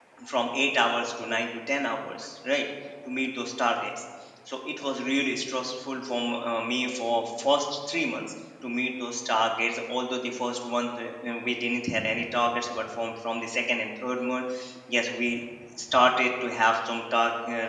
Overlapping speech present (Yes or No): No